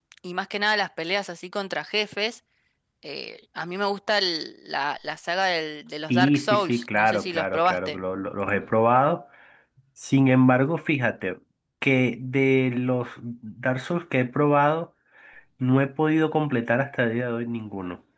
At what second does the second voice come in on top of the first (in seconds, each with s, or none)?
6.1 s